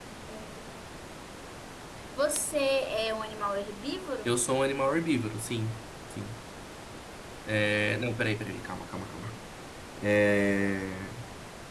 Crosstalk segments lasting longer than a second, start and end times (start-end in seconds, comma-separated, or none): none